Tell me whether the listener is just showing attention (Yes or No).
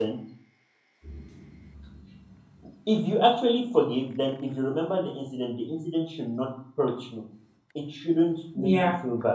Yes